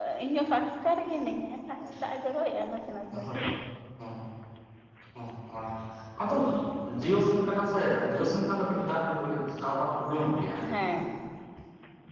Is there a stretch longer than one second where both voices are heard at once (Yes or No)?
No